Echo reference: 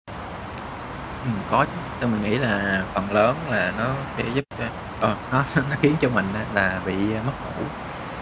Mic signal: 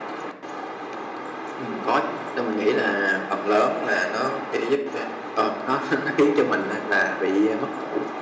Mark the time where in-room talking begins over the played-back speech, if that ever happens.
none

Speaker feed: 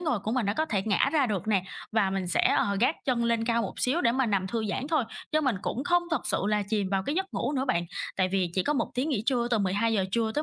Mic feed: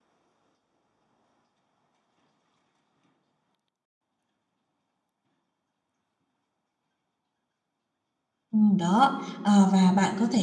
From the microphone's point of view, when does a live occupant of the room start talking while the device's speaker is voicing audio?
8.5 s

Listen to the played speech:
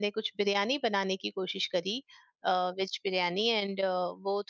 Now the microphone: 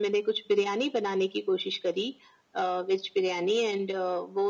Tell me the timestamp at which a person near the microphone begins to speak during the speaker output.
none

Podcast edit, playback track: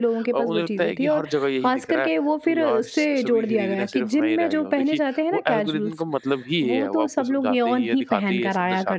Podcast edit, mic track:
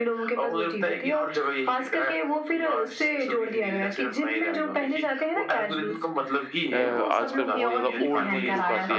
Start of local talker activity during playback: 6.7 s

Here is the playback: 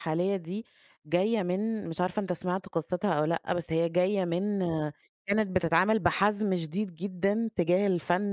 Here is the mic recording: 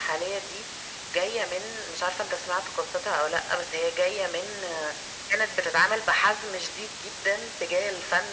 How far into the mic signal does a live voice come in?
none

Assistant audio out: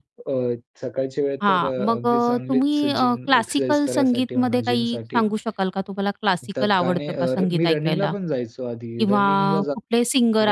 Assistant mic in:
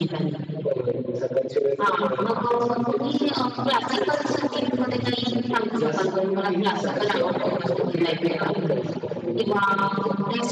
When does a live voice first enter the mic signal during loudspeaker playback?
5.8 s

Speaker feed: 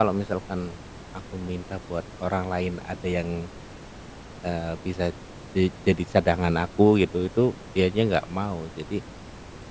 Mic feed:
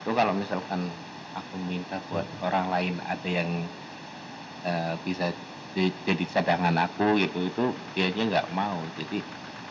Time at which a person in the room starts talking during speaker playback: 2.1 s

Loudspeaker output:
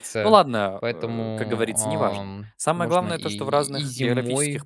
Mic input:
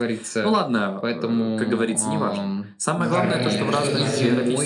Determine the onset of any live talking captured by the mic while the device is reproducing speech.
3.0 s

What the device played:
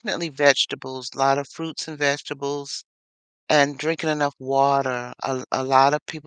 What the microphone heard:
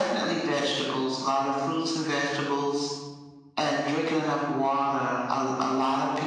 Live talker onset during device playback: none

